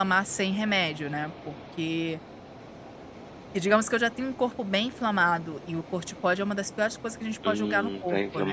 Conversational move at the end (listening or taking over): taking over